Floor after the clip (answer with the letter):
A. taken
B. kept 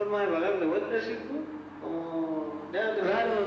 A